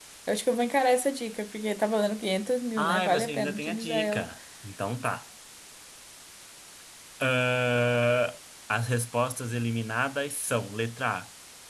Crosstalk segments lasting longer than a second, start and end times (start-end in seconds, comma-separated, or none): 2.8-4.2